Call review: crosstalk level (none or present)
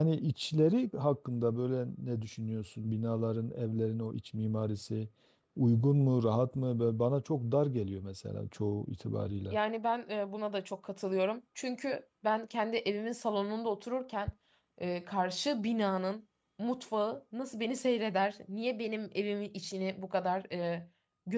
none